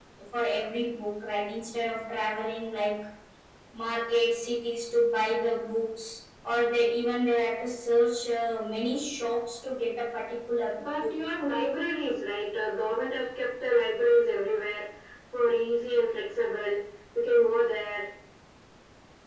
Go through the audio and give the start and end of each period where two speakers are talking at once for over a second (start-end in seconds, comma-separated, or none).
none